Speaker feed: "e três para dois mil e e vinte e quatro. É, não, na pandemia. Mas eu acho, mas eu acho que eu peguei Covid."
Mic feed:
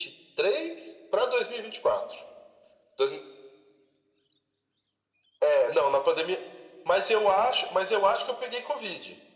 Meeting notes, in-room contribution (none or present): none